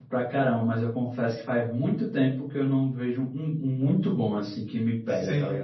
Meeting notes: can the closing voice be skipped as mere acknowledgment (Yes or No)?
No